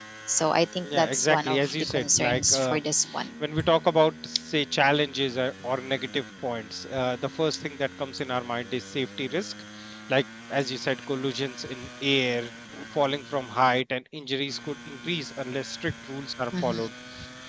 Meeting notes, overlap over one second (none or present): present